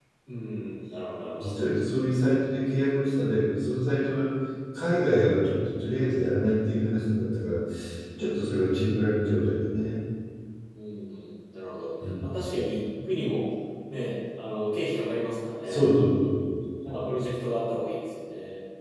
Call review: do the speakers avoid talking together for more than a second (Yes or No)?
Yes